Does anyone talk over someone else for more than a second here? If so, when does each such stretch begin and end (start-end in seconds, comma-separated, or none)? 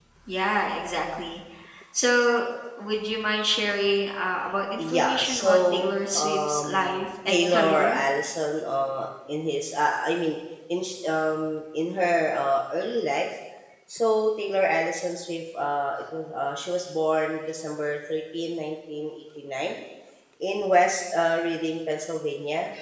4.8-8.0